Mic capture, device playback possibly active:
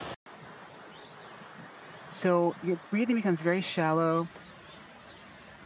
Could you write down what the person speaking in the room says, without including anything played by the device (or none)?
So your breathing becomes very shallow,